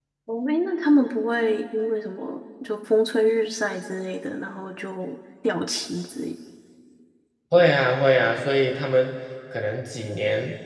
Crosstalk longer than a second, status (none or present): none